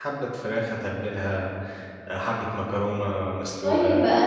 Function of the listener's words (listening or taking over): taking over